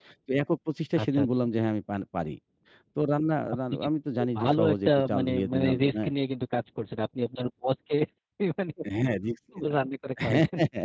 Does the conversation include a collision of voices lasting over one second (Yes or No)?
Yes